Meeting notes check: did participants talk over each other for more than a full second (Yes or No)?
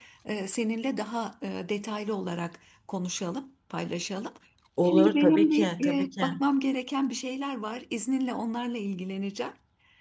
Yes